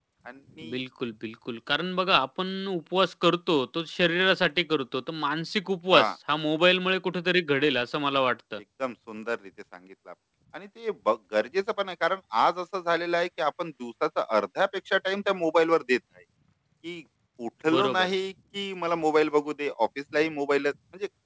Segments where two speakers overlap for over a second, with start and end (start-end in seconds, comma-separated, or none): none